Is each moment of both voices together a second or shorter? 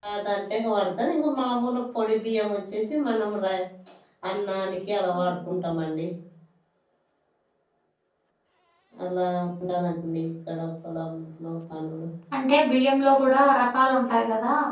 Yes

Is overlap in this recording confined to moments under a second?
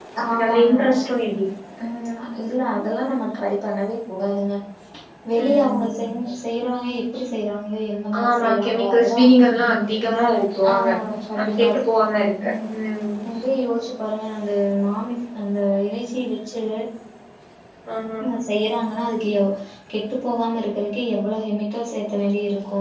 No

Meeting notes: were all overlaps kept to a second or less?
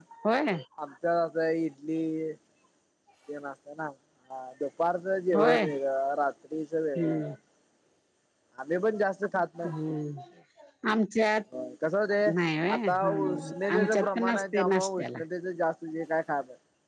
No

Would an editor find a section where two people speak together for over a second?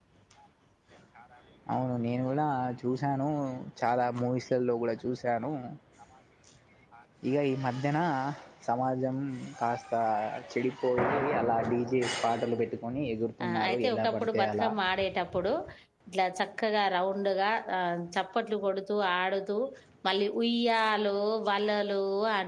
Yes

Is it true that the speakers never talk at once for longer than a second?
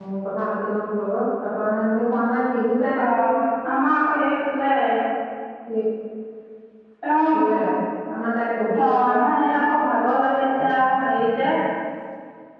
Yes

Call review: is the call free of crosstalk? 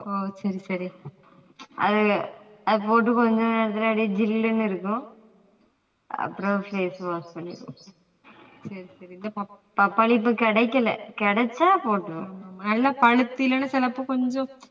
Yes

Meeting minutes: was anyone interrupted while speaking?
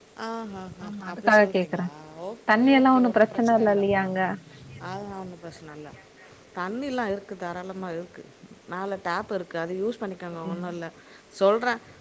Yes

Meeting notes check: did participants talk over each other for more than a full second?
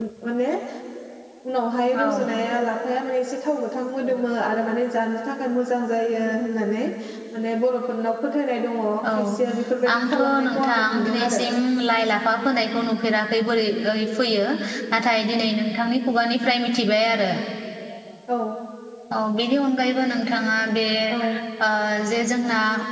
Yes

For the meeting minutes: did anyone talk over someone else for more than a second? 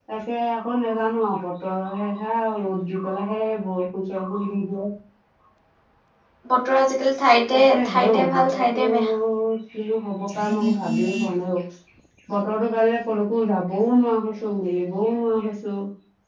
Yes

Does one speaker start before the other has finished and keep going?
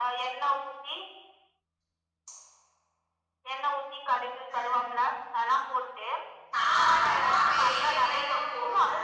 Yes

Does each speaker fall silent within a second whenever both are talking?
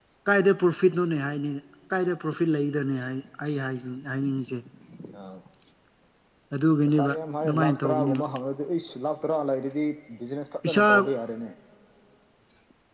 No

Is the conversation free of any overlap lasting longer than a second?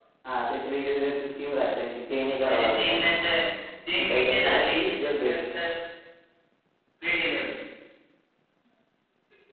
No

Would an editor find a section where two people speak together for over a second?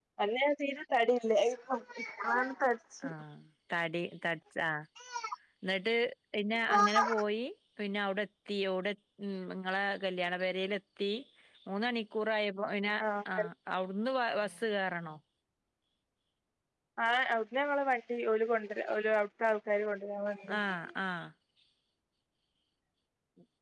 No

